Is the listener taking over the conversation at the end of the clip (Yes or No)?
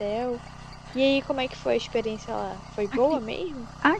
Yes